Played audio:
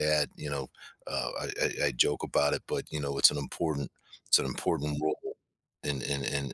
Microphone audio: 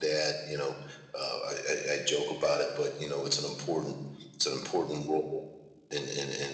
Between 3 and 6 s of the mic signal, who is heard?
echo only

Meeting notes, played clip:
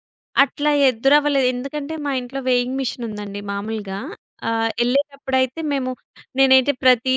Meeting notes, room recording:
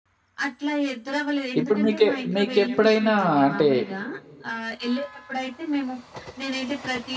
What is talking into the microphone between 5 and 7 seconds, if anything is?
echo only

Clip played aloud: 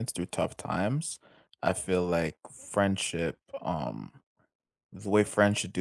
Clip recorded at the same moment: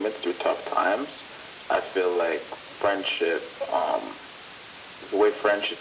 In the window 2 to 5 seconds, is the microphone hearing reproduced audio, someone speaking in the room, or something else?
echo only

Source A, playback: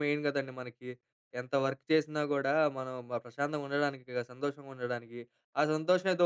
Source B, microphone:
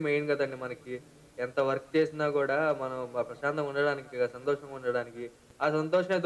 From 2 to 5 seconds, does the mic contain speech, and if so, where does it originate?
echo only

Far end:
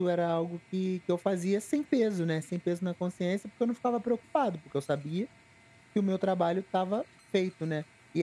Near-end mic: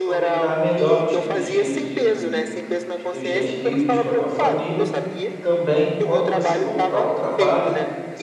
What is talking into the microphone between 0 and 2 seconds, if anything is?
both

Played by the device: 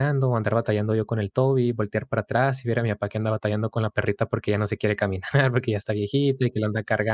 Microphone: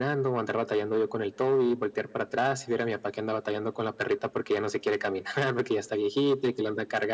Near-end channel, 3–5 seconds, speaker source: echo only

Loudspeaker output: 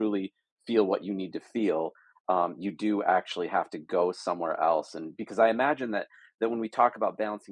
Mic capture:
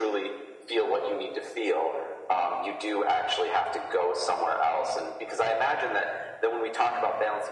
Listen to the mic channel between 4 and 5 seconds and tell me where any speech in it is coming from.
echo only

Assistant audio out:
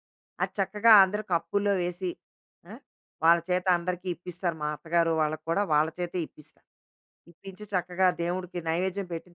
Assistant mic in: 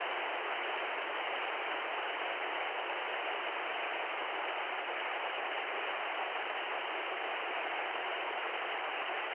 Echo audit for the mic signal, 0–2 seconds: neither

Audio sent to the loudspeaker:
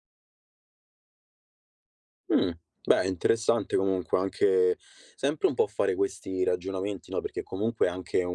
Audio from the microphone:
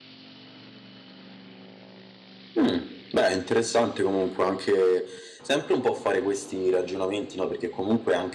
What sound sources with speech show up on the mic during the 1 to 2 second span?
neither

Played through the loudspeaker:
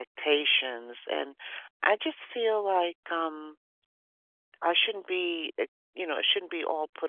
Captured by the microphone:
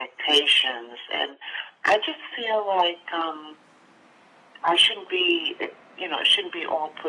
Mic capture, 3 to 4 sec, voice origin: echo only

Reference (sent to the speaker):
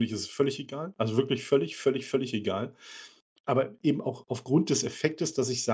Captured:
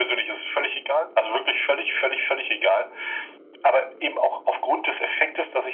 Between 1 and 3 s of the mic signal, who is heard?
echo only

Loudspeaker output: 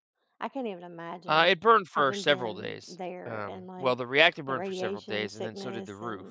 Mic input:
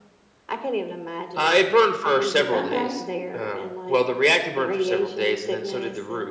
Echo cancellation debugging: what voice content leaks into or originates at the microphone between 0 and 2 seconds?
echo only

